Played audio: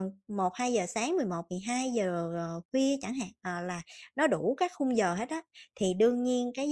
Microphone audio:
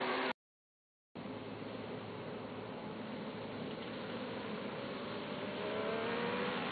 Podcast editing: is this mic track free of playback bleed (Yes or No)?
Yes